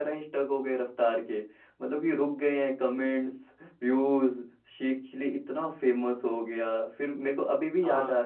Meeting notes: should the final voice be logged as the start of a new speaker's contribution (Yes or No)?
No